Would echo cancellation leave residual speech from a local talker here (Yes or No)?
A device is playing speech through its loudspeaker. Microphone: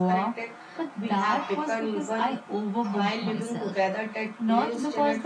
No